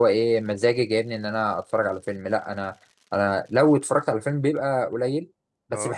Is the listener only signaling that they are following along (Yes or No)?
Yes